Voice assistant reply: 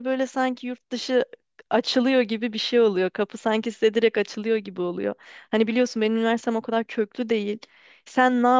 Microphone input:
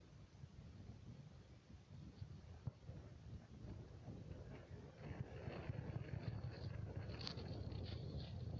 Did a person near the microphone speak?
No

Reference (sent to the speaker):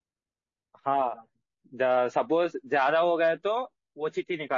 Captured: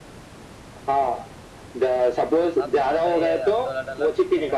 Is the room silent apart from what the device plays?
No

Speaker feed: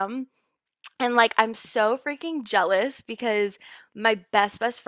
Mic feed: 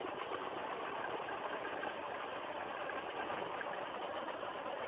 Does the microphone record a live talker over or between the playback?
No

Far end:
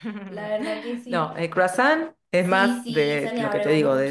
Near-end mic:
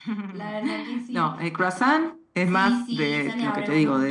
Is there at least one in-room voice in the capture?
No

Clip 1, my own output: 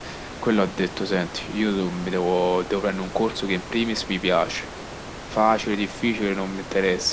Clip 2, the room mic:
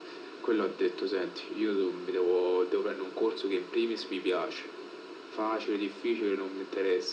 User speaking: No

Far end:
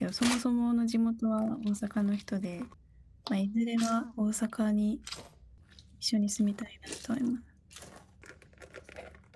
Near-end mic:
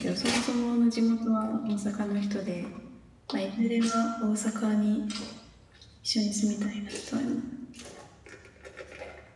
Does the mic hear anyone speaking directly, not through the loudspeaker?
No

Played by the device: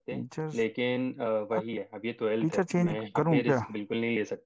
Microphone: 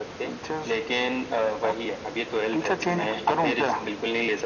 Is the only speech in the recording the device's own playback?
Yes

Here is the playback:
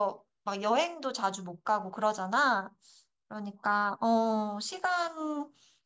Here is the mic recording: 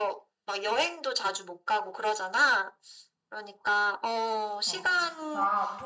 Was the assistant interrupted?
Yes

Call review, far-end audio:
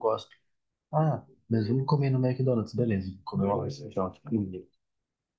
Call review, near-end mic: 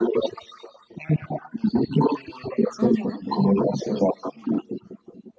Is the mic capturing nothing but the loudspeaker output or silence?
No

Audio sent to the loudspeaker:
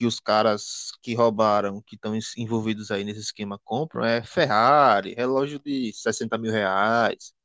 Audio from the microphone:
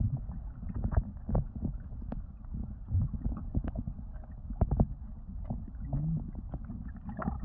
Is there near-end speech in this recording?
No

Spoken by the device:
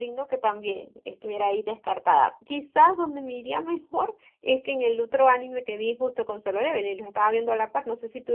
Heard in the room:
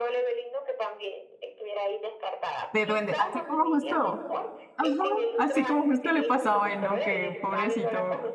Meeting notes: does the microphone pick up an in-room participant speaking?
Yes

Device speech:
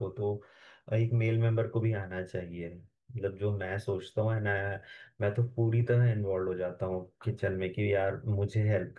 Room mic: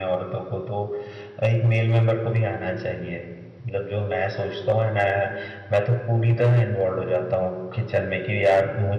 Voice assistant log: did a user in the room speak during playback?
No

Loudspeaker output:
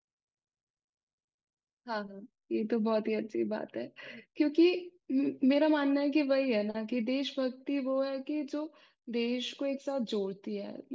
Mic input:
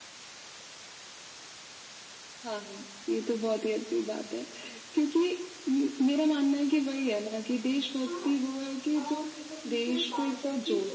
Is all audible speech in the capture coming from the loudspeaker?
No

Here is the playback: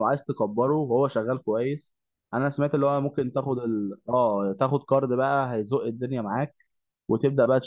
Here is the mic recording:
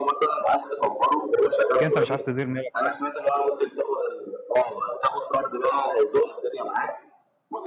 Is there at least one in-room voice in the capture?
Yes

